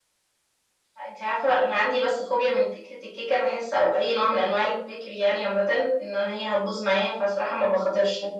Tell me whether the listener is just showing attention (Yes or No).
Yes